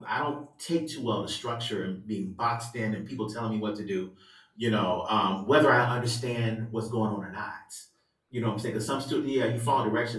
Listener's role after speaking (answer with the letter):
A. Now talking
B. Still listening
B